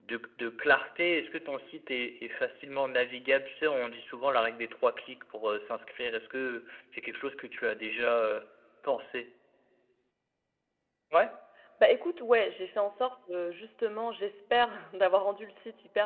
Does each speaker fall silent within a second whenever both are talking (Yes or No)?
Yes